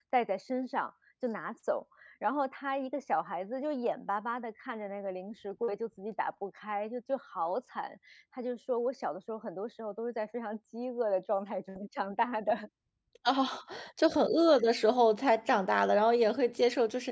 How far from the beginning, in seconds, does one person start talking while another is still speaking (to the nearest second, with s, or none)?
none